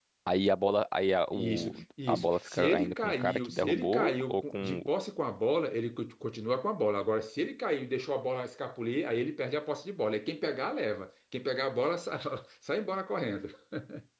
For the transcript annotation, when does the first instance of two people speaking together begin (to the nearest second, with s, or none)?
1 s